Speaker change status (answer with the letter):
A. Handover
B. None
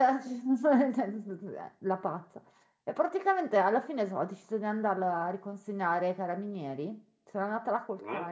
B